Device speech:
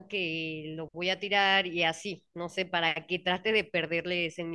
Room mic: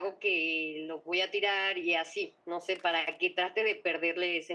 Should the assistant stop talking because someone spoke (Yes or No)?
No